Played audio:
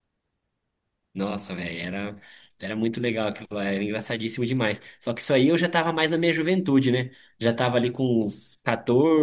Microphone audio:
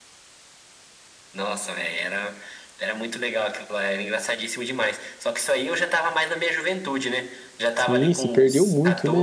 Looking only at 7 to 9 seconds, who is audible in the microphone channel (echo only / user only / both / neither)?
both